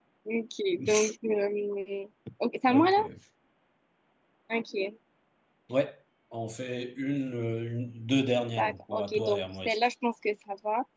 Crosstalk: present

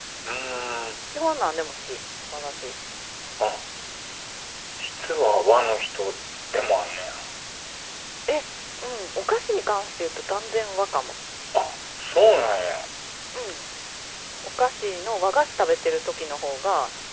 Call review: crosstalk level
none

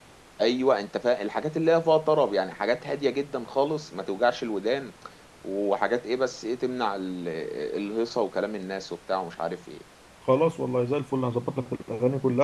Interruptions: none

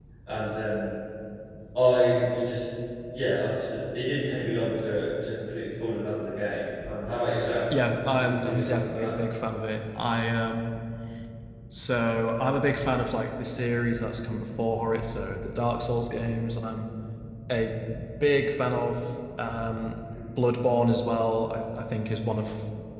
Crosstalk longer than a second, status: present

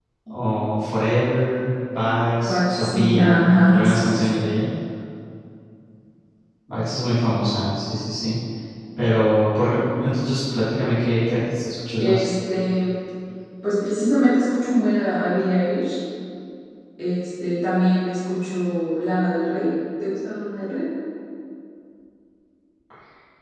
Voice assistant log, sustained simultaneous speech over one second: present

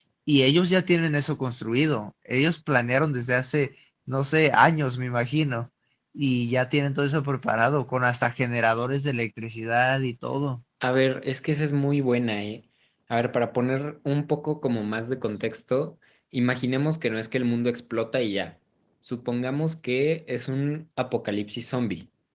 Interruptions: none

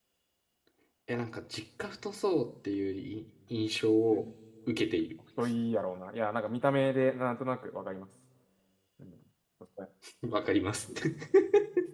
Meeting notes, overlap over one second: none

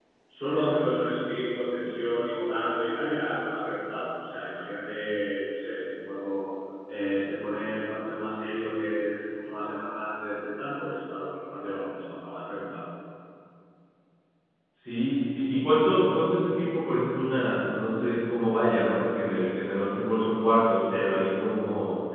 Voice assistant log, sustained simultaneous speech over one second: none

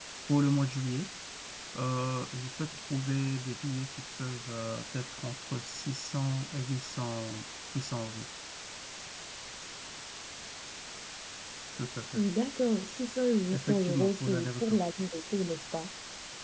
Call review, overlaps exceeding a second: present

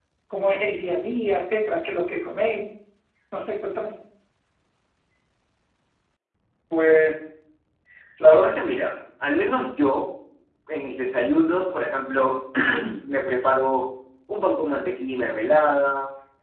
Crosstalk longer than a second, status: none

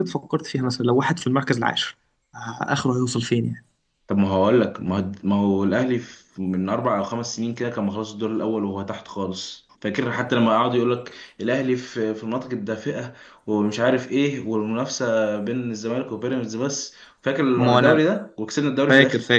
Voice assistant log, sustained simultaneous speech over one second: none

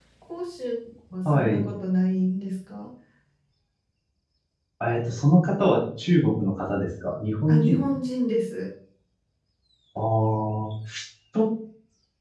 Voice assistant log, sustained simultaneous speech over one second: none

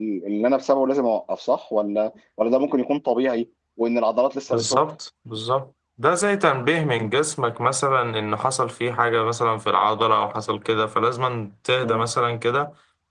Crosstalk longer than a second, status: none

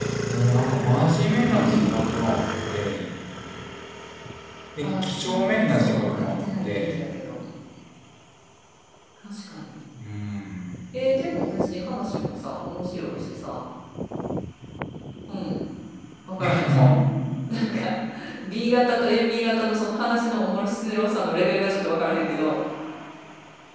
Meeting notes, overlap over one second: present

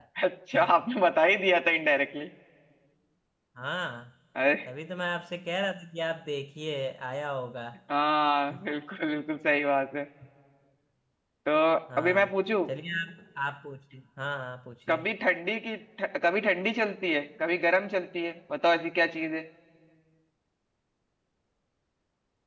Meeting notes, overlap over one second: none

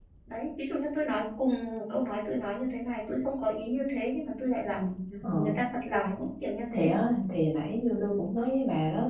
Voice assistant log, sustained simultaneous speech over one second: none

